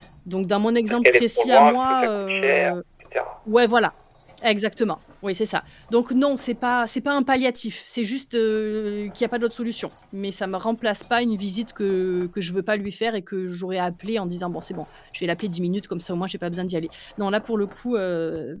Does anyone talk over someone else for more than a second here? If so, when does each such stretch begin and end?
0.9-2.8

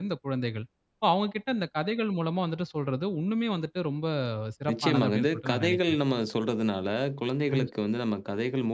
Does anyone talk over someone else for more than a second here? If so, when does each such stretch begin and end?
4.7-6.0

